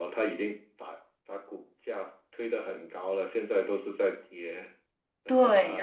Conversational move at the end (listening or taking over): taking over